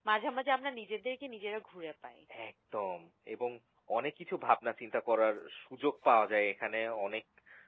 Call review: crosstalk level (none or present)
none